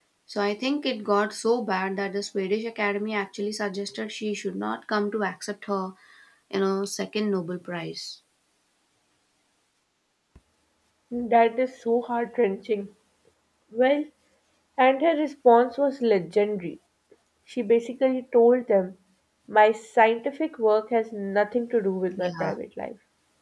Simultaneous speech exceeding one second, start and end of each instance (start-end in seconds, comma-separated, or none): none